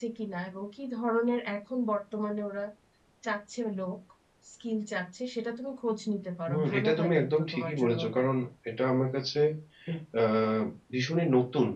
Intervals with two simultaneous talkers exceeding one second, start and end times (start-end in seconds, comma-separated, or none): 6.5-8.2